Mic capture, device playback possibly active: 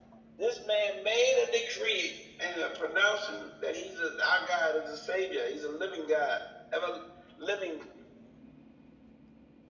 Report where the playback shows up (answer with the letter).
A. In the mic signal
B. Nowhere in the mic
A